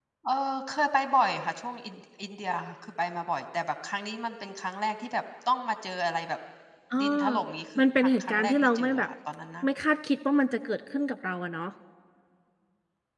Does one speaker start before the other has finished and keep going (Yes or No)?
Yes